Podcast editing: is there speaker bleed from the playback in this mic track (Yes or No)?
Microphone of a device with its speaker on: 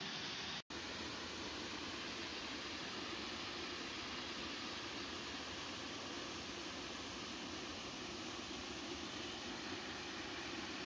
No